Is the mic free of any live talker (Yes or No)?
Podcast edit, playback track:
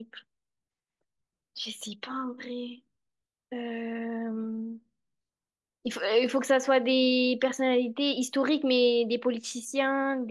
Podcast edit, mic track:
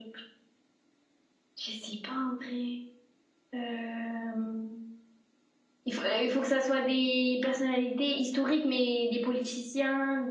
Yes